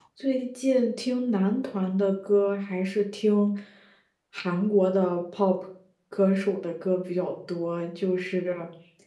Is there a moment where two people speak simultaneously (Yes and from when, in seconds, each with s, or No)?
No